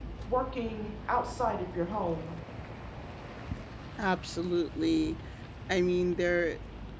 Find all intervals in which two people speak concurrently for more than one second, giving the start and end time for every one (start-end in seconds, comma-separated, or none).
none